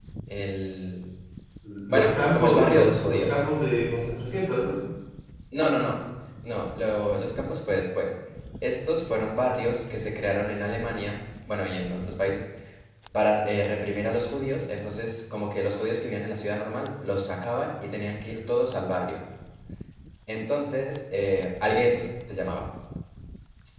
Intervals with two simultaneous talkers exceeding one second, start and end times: 1.9-3.3

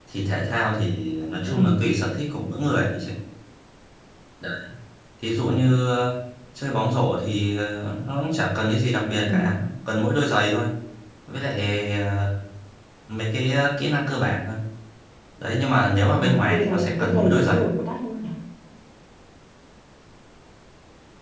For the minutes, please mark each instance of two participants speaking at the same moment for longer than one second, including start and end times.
16.1-17.7

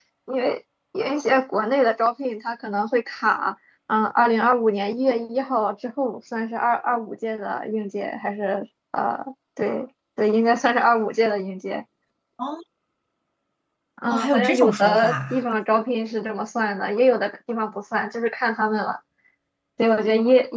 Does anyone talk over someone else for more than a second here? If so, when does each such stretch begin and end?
14.1-15.4

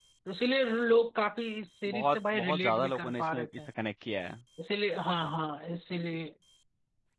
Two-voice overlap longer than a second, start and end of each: 1.9-3.5

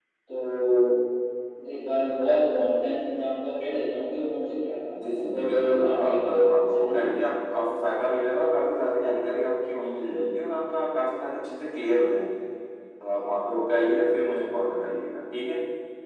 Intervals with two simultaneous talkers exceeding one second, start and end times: 5.0-7.0

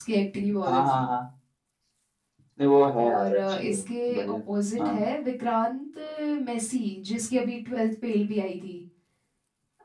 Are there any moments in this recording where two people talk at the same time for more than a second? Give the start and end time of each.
3.0-4.4

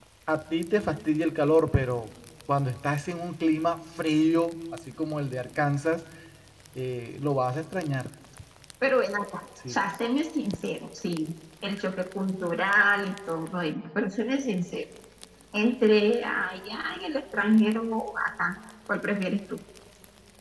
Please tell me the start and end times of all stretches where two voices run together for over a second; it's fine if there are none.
none

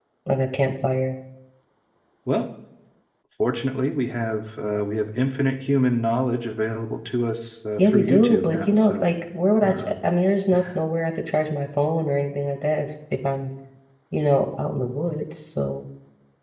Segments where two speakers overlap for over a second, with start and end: 7.8-9.1

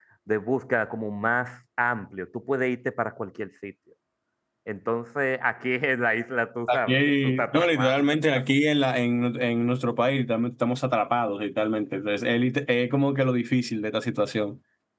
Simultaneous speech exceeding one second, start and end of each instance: 6.7-8.1

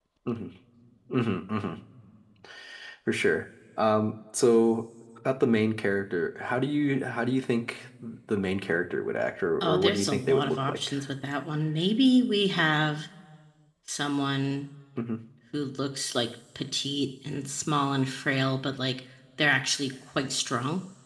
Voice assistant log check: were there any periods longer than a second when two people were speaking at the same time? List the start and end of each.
9.6-10.9

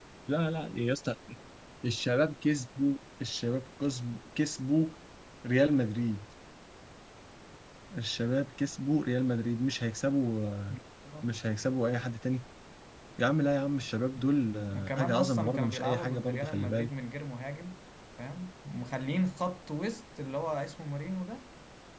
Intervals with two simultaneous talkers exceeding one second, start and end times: 14.7-16.9

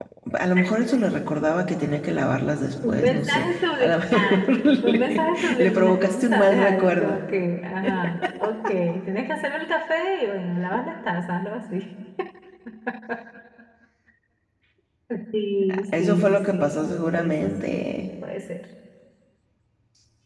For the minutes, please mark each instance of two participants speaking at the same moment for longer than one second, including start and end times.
2.9-7.2, 16.0-17.8

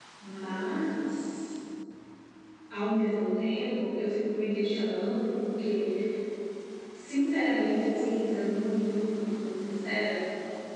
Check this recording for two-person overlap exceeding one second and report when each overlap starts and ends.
none

